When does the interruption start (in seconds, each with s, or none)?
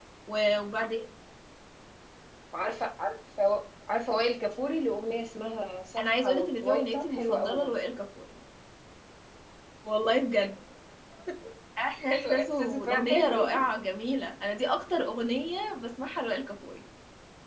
6.0 s